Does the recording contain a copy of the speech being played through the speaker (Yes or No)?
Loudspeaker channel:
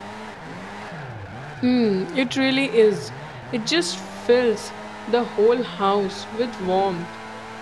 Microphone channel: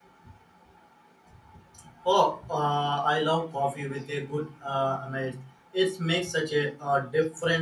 No